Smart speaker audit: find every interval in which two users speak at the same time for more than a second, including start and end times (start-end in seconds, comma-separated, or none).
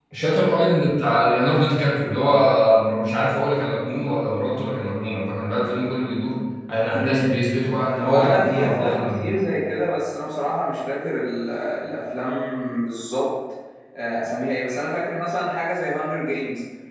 8.0-9.5